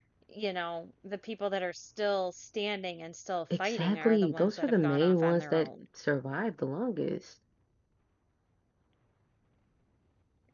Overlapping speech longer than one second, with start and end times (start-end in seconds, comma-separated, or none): 3.6-5.7